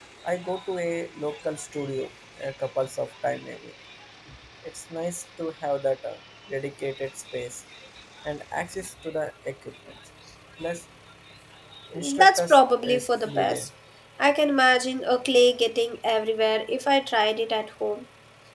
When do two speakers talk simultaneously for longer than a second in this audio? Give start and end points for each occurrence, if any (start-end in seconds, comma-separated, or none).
12.2-13.7